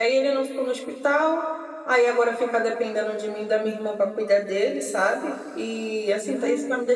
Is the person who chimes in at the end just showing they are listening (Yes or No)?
Yes